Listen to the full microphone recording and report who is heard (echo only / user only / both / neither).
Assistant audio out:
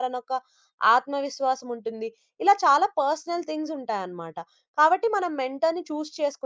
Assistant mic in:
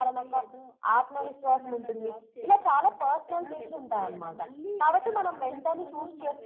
both